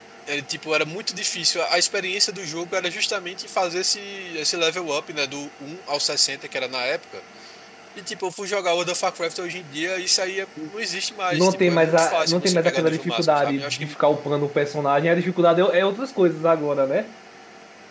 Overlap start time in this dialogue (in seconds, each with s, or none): 11.3 s